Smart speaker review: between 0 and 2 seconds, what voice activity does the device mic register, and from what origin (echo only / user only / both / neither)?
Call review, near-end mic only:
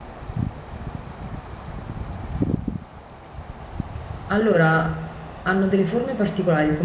neither